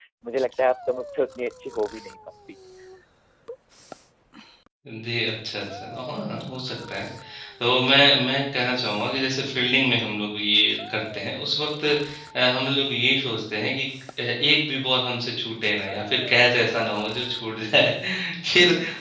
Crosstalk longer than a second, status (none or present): none